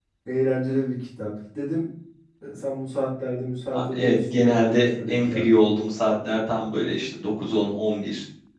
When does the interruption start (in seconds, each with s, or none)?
3.7 s